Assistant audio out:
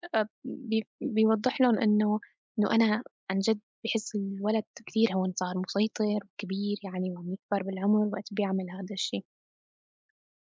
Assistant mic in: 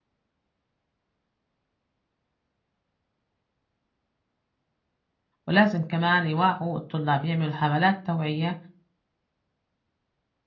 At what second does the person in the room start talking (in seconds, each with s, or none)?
5.5 s